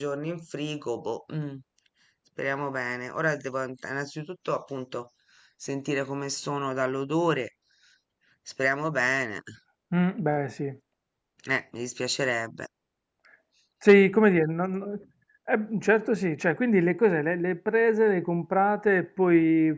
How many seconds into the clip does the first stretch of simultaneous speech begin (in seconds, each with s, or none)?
none